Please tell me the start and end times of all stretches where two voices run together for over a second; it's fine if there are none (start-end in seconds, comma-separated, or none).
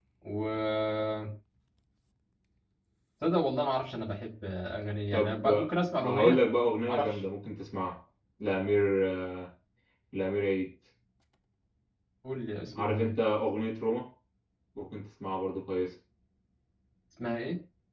5.1-6.4